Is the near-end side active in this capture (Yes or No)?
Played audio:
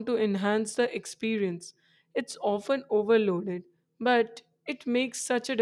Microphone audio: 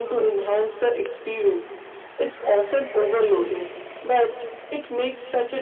No